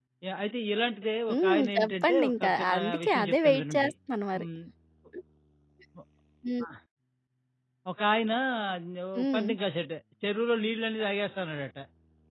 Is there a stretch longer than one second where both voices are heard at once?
Yes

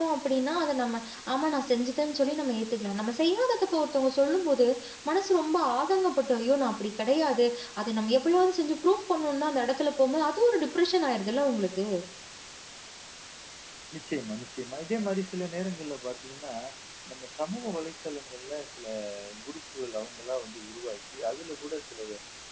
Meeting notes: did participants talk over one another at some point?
No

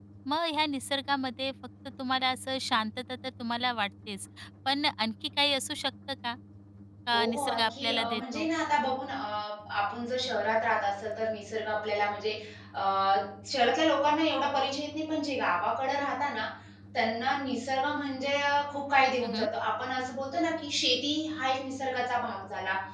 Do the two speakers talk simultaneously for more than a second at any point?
Yes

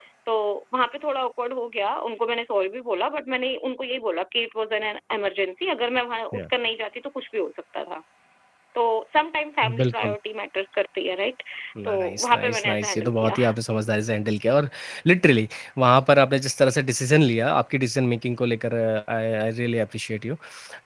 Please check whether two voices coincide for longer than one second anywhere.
Yes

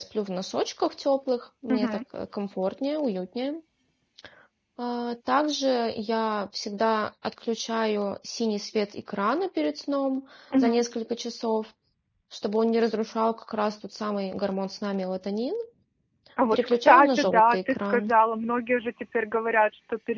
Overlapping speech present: Yes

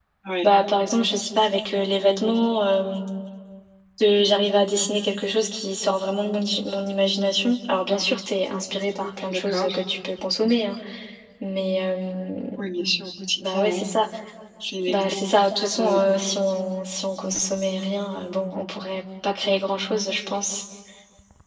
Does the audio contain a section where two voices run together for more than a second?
No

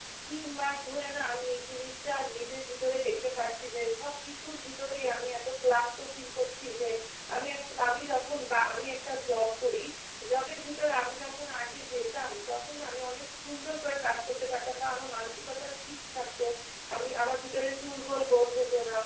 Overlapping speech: No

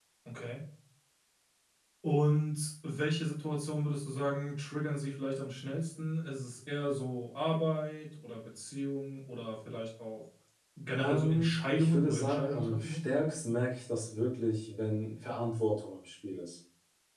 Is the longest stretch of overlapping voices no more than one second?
No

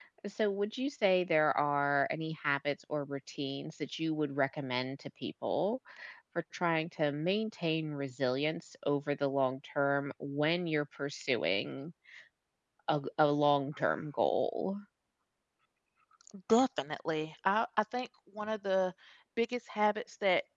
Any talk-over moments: No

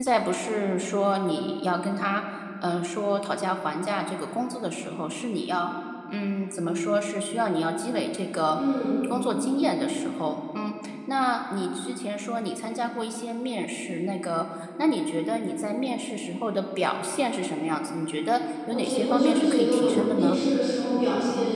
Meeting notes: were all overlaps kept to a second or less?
No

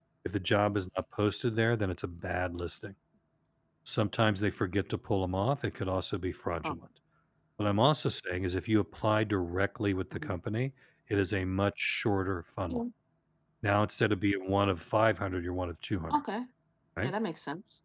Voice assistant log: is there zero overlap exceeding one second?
Yes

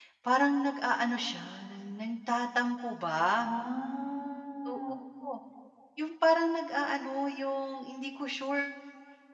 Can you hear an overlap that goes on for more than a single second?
No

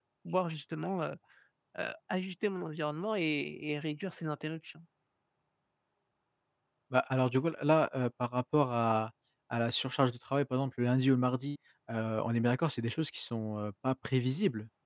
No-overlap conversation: Yes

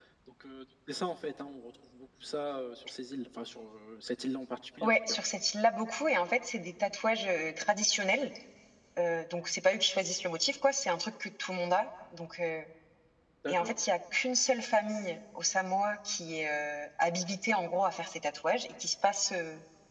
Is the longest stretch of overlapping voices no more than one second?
Yes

